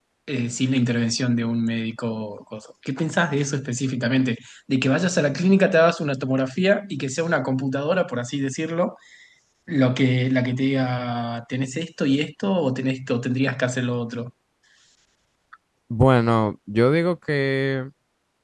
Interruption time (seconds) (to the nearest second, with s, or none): none